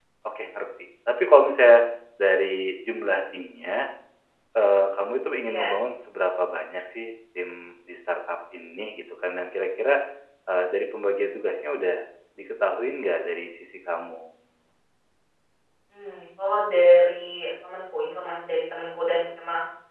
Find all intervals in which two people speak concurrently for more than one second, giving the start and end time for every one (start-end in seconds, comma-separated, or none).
none